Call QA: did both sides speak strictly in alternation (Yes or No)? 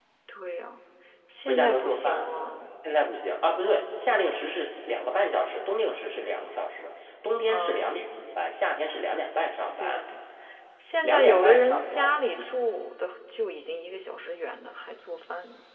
No